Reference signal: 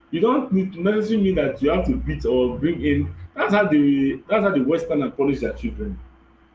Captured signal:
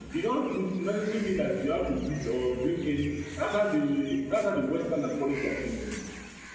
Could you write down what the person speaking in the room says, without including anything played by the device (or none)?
none